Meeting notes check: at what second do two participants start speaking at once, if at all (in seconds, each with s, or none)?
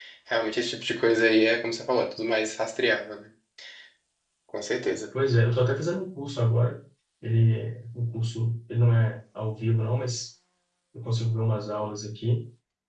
none